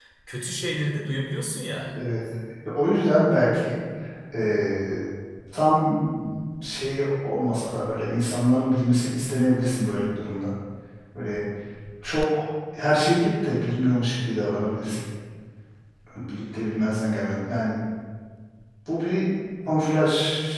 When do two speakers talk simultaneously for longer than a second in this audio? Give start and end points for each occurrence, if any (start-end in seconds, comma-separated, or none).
none